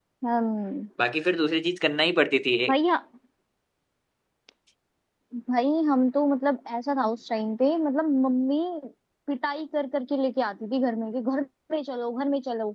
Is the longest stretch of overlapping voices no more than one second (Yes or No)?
Yes